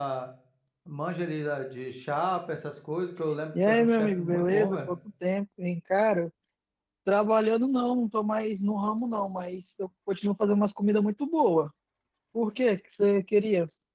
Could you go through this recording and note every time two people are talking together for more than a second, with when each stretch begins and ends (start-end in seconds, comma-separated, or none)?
3.7-4.9